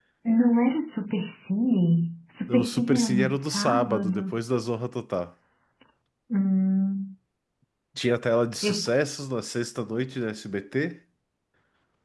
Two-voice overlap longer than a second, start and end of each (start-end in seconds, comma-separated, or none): 2.5-4.4